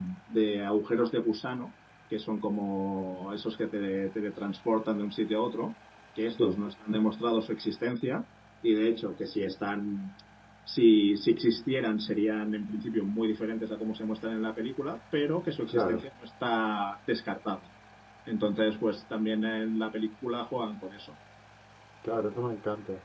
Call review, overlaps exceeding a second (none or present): none